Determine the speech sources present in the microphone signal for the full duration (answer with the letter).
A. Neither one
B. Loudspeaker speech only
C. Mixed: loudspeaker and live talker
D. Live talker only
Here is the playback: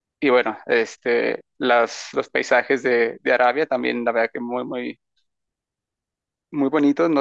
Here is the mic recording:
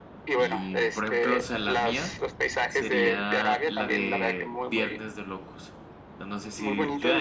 C